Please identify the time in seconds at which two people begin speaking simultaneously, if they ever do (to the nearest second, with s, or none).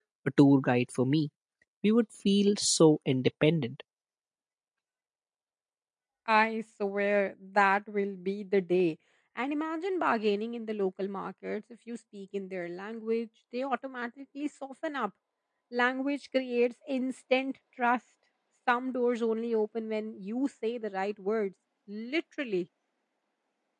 none